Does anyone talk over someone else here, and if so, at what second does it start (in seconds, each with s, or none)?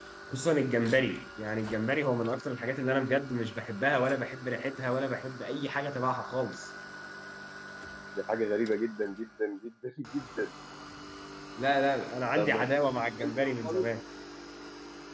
12.4 s